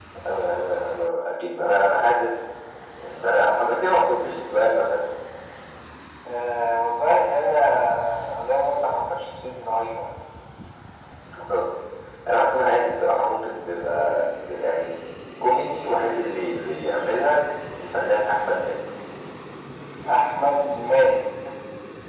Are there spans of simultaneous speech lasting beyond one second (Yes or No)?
No